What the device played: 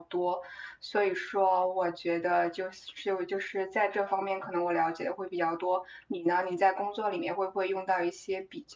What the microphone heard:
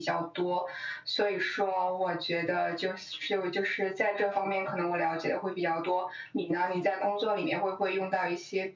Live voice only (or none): none